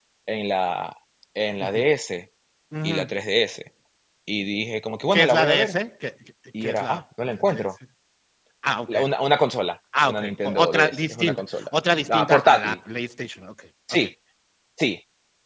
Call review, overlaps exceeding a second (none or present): present